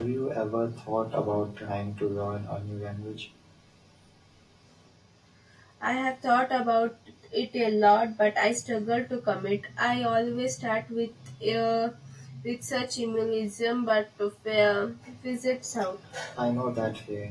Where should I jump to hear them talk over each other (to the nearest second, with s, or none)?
none